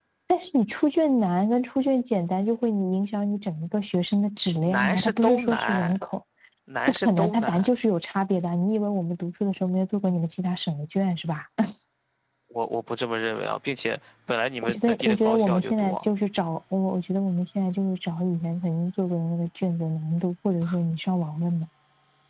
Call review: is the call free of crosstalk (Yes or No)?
No